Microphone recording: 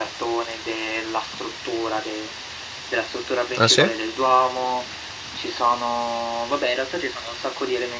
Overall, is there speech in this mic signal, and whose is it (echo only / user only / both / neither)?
both